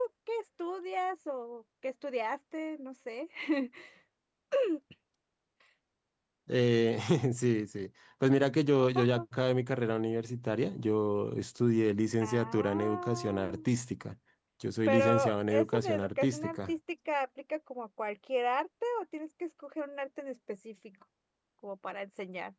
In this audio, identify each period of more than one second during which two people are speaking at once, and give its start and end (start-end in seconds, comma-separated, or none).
12.2-13.6, 14.9-16.7